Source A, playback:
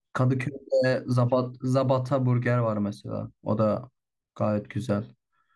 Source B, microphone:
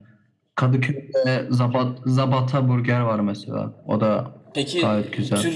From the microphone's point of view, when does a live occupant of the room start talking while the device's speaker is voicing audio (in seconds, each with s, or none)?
4.5 s